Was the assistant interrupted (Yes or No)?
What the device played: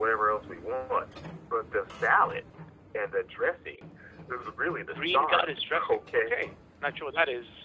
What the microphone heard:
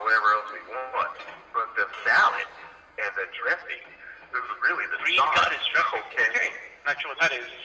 No